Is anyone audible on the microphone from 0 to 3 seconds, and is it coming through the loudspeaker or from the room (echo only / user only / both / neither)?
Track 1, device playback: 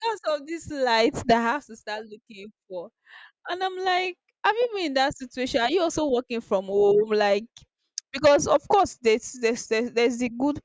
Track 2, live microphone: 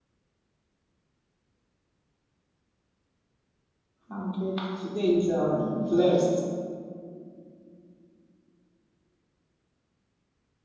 neither